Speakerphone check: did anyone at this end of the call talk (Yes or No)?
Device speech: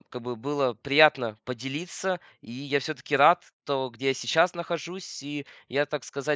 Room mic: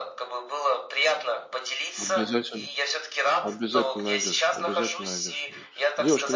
Yes